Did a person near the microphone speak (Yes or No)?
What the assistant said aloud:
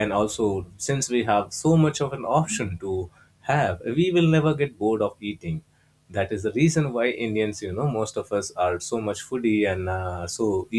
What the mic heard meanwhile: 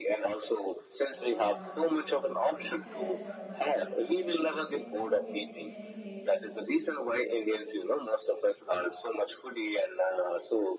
Yes